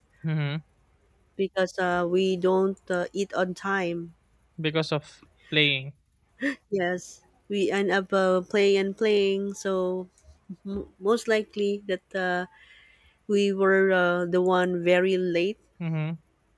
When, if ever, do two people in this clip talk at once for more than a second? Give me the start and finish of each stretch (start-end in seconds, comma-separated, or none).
none